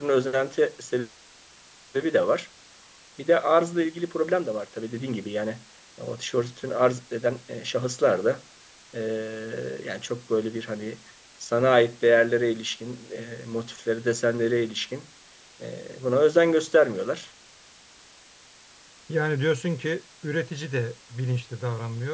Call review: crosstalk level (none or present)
none